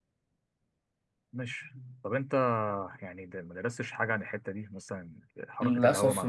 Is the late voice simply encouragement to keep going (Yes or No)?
No